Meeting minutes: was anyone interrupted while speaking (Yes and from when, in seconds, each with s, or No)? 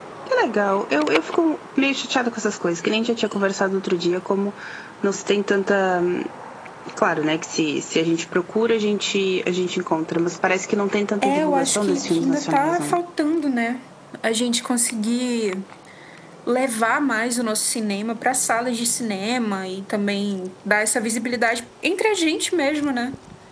Yes, from 11.2 s